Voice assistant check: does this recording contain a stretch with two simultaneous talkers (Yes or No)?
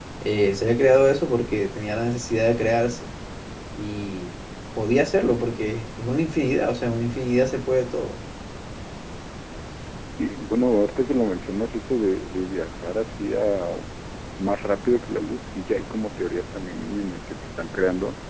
No